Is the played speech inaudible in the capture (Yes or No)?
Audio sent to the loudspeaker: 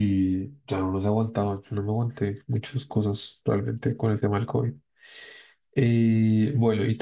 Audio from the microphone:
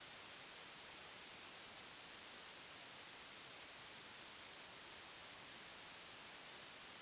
Yes